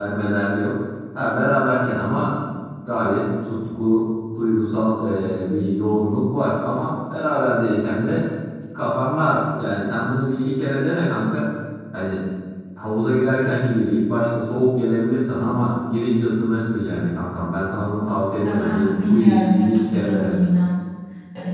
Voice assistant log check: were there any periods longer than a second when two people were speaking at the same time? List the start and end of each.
18.4-20.3

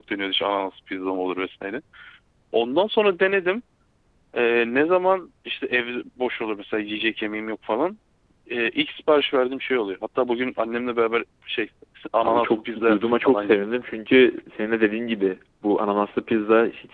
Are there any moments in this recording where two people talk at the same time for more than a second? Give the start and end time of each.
12.2-13.7

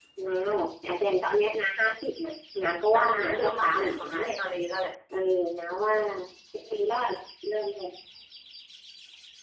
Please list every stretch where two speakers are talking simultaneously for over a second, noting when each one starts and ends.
2.9-4.3

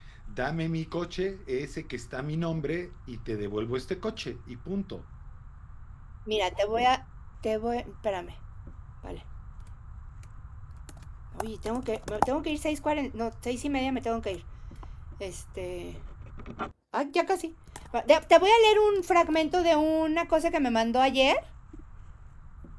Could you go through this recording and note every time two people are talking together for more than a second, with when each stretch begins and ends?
none

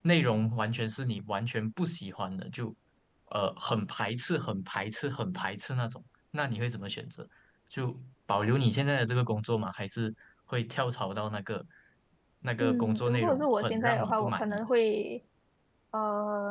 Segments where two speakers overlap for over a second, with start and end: 12.6-14.7

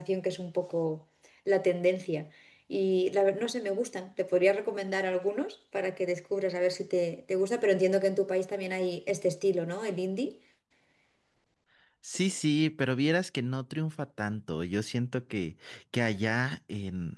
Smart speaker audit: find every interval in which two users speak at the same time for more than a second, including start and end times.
none

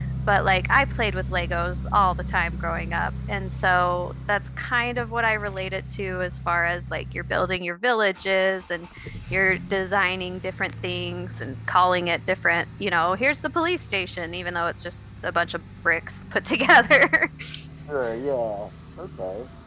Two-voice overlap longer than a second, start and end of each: none

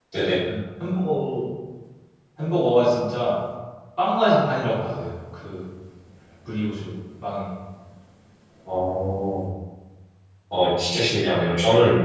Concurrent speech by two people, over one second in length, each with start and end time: none

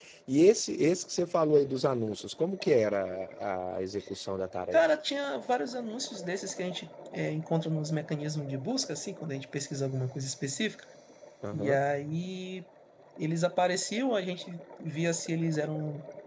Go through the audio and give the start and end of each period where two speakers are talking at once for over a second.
none

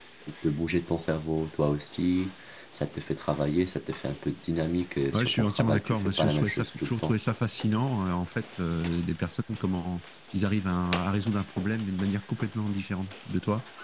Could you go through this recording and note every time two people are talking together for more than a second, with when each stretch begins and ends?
5.1-7.1

